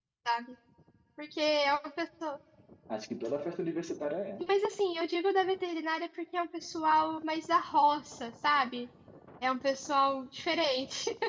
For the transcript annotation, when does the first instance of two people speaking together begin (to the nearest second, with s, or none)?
none